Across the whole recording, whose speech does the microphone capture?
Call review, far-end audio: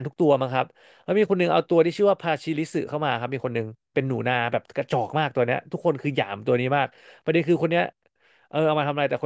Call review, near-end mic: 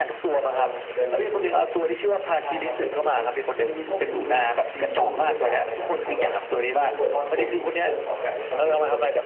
both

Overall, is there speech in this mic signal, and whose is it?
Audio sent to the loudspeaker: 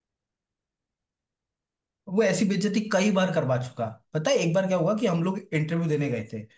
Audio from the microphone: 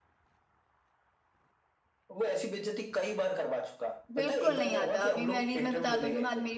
both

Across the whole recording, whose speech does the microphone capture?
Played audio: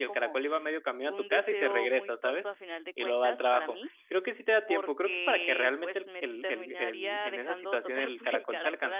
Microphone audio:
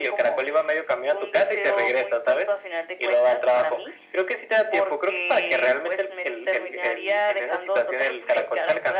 echo only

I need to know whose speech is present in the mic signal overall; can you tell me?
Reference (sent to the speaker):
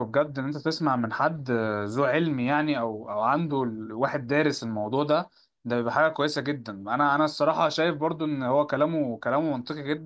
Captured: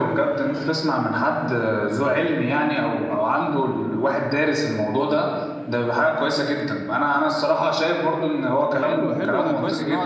both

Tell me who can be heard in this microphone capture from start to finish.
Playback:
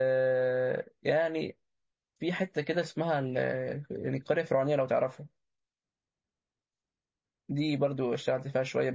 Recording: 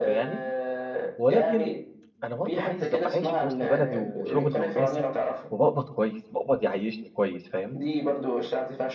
both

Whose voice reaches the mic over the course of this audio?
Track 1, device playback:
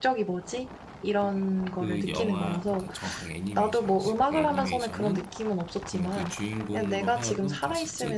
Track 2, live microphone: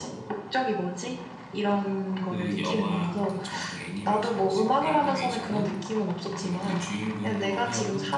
echo only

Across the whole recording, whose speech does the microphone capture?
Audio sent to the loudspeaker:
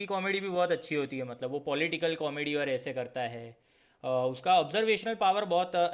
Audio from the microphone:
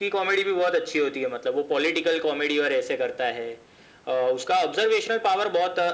echo only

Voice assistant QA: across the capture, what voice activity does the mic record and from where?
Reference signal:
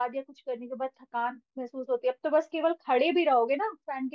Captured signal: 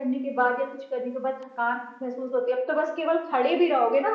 echo only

